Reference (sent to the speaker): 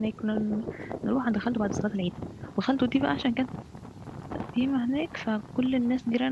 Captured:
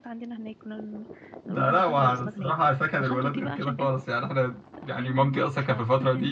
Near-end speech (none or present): present